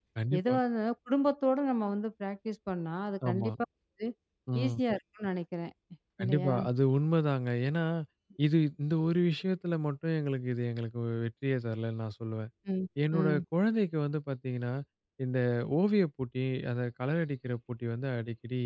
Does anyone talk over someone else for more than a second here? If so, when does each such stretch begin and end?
none

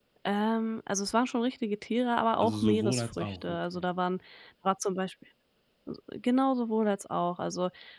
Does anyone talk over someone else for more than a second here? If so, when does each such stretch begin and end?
2.4-3.9

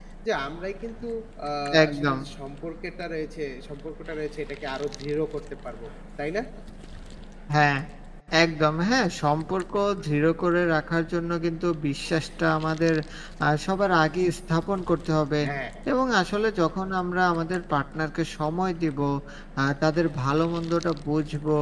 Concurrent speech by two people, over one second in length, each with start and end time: none

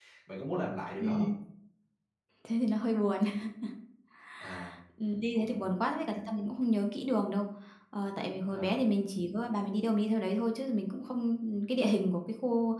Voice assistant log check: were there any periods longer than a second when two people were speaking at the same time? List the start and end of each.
none

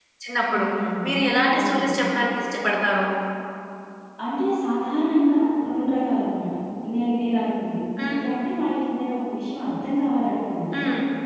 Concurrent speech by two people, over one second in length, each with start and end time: none

